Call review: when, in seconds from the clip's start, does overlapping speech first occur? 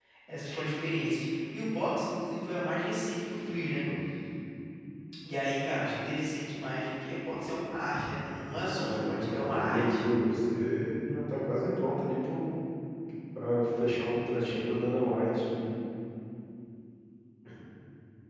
8.6 s

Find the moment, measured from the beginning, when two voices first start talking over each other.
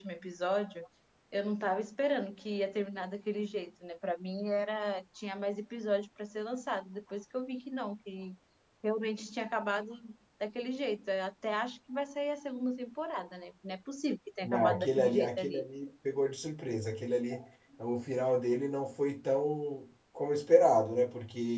14.4 s

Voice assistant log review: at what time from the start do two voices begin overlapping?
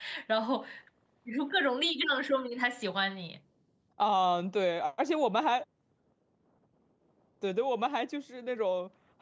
none

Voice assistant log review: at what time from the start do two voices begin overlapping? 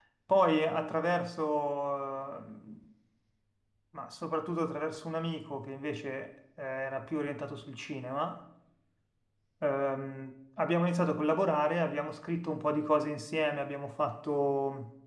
none

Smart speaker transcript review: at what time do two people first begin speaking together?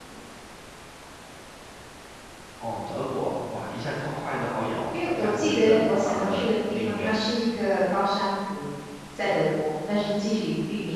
4.9 s

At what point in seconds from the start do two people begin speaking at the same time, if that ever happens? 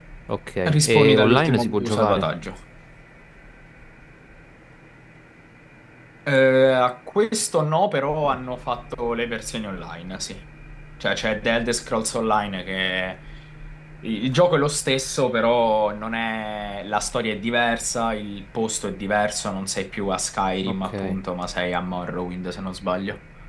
0.7 s

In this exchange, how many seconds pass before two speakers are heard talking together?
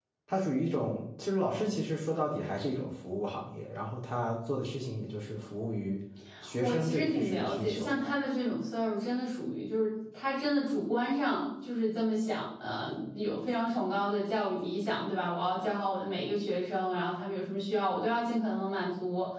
6.6 s

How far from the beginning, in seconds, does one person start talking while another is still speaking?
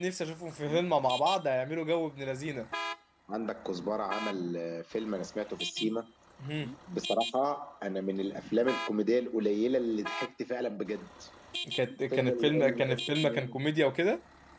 12.1 s

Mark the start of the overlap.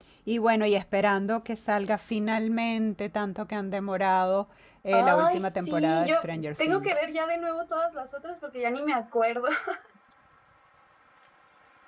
4.9 s

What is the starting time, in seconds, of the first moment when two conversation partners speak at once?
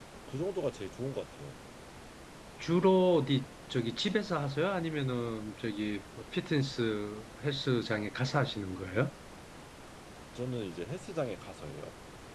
none

